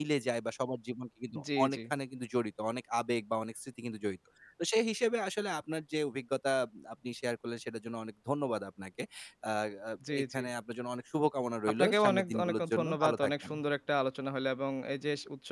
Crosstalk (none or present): present